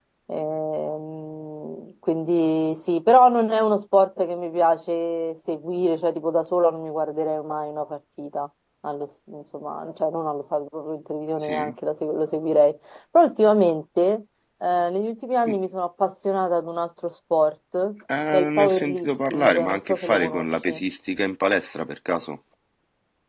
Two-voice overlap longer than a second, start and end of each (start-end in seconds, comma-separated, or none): 18.3-20.8